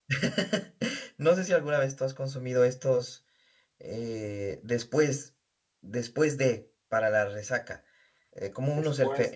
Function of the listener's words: listening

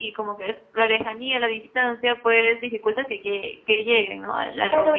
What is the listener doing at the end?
taking over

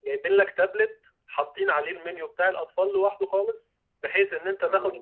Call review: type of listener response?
listening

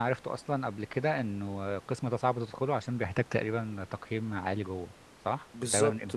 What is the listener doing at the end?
taking over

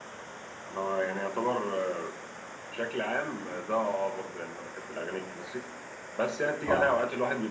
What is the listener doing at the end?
listening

